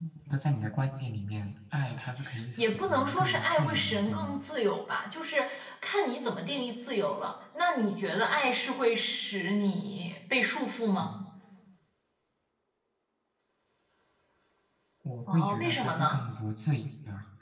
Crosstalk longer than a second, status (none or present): present